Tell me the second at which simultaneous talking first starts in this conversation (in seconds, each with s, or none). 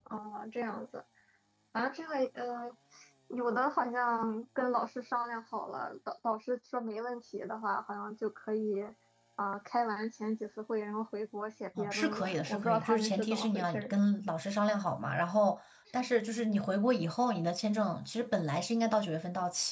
11.8 s